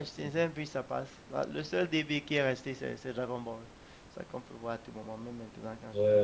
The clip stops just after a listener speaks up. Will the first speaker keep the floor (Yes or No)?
No